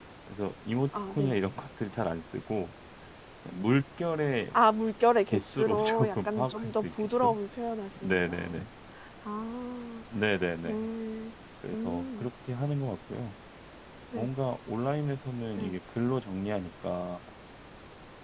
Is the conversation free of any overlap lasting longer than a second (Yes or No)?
No